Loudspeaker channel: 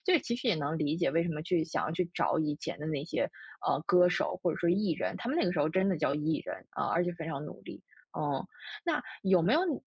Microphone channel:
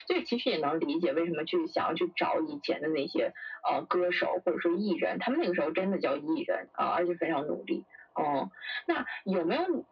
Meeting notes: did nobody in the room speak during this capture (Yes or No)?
Yes